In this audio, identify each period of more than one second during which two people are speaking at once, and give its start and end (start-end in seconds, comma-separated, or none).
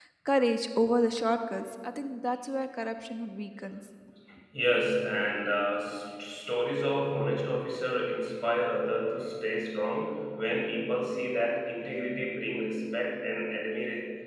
none